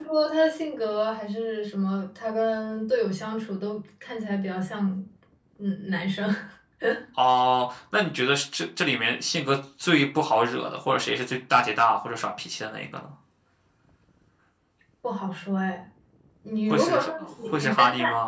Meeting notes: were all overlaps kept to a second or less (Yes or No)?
No